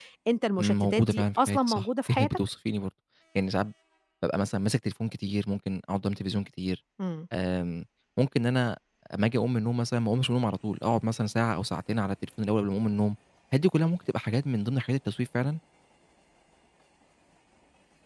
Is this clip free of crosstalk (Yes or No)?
No